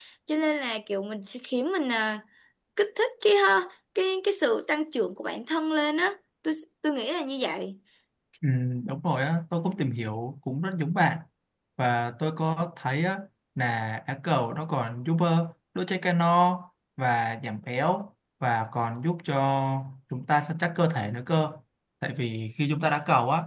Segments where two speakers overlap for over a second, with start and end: none

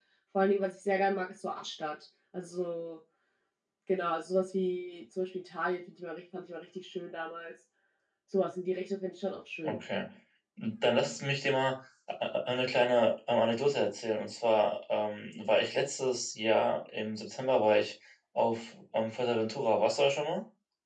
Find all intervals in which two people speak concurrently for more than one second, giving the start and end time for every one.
none

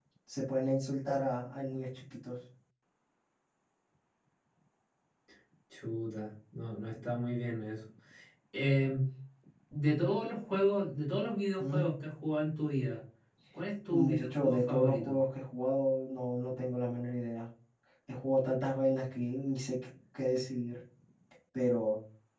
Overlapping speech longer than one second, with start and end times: 13.9-15.1

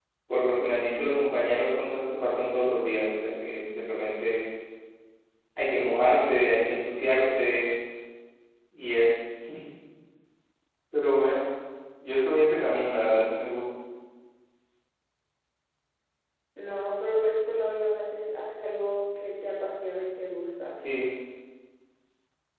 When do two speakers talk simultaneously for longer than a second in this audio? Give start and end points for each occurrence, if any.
none

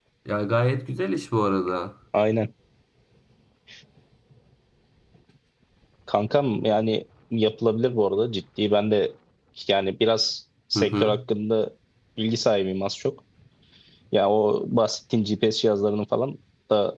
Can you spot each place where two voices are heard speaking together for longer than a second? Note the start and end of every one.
none

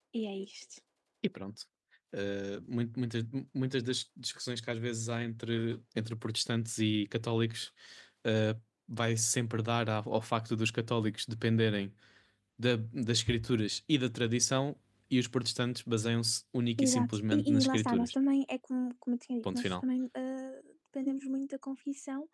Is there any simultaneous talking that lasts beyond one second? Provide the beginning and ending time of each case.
16.8-18.1

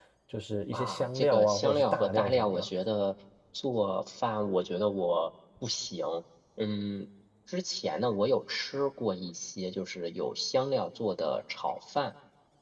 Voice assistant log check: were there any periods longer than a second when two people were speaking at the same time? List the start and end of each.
0.7-2.7

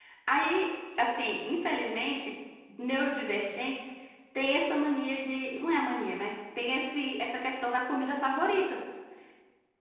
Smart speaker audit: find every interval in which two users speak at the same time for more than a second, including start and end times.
none

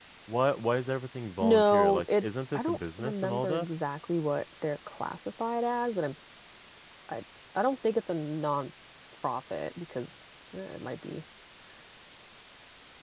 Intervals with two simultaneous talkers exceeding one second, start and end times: 1.4-3.6

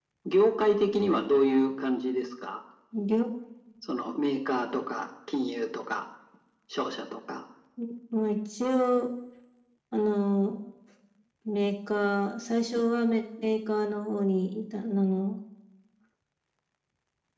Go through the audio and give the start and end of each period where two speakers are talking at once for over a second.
none

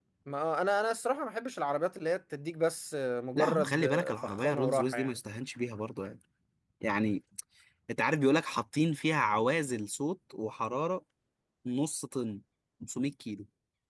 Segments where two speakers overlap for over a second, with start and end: 3.4-5.1

